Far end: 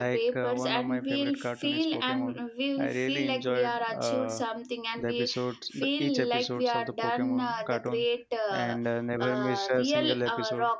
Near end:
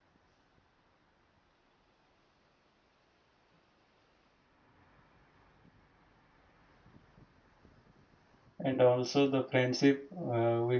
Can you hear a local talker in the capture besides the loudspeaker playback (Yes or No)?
Yes